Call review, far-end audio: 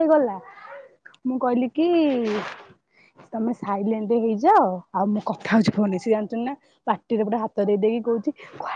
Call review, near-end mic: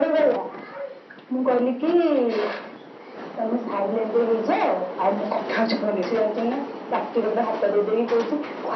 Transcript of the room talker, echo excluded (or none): none